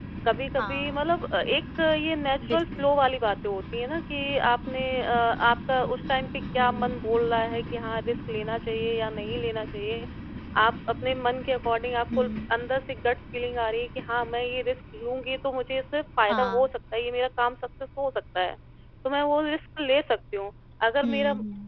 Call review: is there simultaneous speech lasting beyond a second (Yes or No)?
No